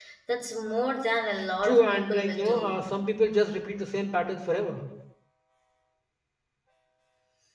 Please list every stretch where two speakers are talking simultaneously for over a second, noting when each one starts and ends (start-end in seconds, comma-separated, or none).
1.6-2.8